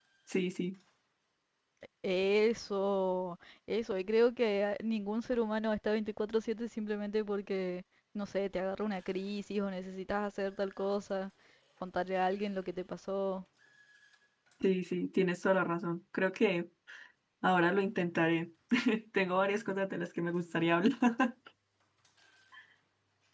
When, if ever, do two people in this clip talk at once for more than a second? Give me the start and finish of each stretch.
none

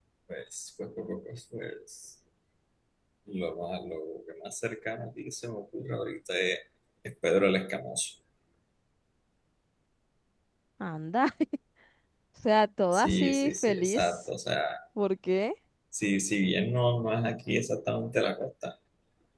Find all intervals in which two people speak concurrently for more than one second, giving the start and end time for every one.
12.9-14.2

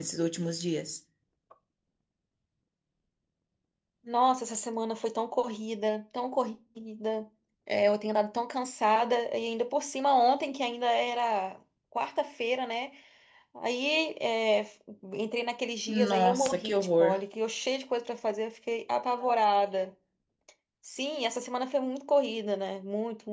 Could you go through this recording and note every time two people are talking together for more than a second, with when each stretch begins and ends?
15.9-17.2

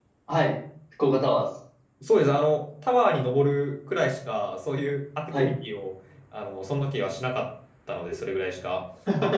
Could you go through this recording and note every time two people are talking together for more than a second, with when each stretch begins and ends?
none

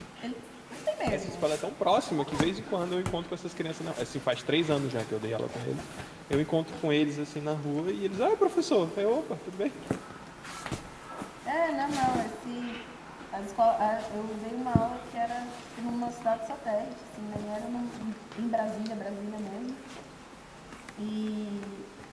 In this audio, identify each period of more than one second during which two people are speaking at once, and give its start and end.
none

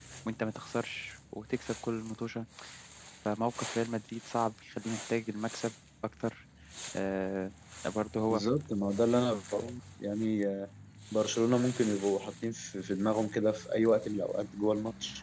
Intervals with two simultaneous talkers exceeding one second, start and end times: none

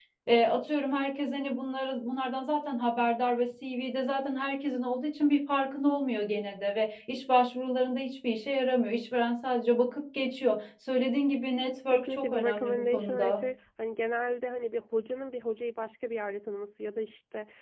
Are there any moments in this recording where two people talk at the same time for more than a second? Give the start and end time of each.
11.9-13.4

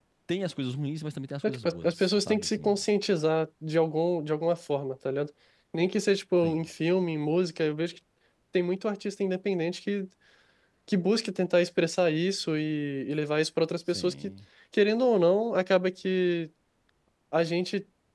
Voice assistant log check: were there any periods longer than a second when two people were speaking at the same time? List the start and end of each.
1.4-2.8

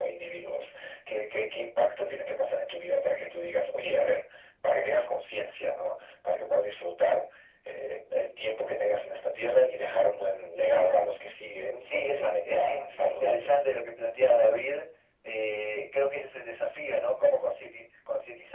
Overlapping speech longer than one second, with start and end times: 11.8-13.5

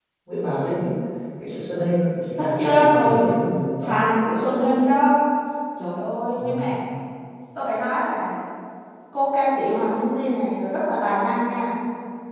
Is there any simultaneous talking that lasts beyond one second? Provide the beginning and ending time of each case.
2.4-3.9

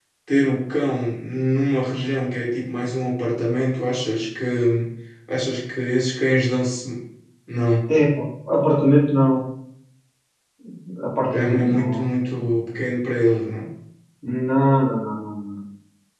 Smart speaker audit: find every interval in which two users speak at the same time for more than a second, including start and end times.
11.3-12.9

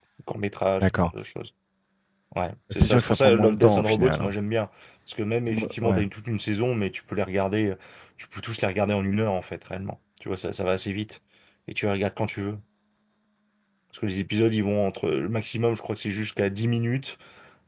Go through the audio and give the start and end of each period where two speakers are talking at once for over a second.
2.7-4.3

